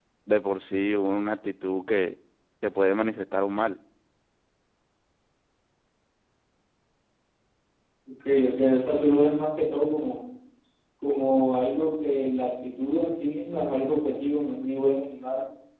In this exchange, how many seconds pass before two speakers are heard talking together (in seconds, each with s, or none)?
none